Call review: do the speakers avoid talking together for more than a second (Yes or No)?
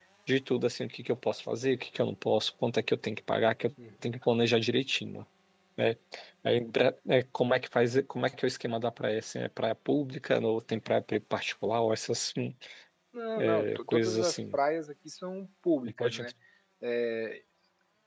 No